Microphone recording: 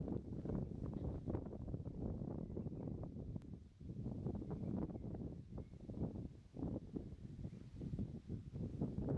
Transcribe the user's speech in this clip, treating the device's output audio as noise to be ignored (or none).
none